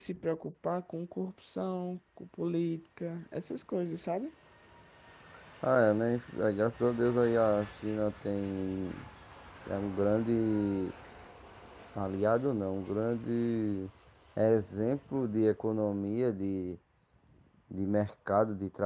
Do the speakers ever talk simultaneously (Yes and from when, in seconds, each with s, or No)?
No